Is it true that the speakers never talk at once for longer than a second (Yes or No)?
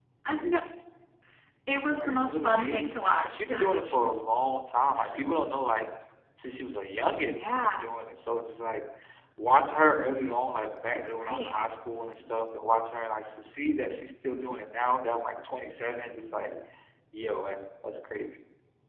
No